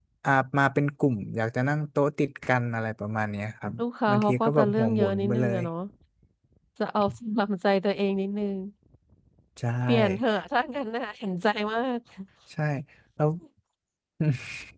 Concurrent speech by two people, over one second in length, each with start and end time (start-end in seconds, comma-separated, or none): 4.1-5.6